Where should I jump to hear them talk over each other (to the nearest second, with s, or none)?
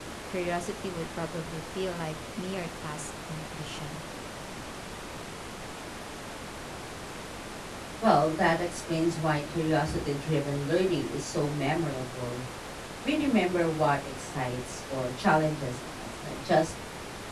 none